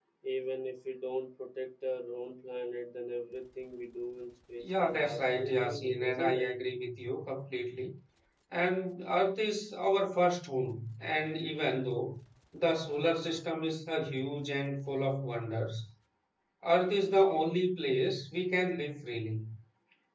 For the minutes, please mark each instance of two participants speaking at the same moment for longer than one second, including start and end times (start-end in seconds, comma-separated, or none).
4.6-6.4